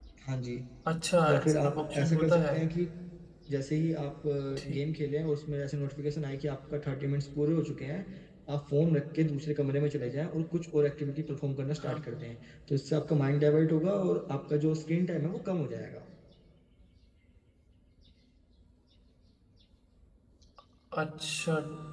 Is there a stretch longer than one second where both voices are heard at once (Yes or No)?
Yes